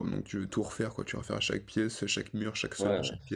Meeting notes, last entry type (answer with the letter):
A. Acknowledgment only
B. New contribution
B